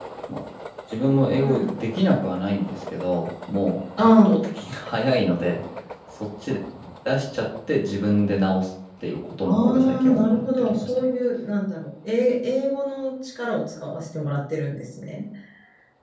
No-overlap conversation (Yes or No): No